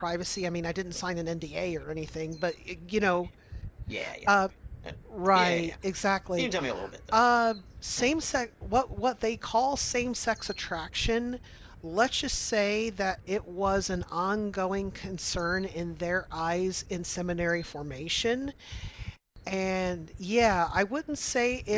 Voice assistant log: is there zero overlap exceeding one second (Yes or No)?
Yes